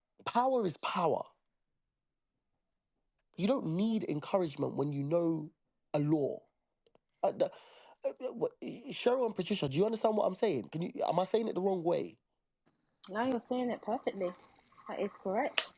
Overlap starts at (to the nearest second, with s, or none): none